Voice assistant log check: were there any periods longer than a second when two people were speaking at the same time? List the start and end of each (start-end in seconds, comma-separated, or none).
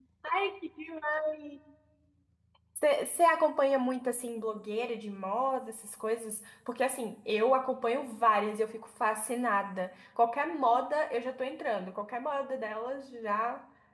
none